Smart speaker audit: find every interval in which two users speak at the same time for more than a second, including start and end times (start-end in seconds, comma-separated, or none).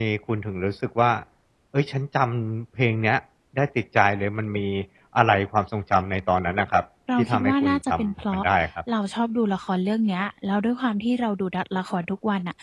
7.2-8.4